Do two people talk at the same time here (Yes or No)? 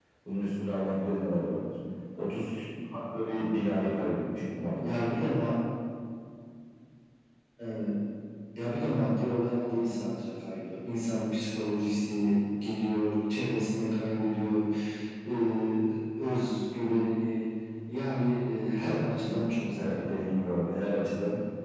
Yes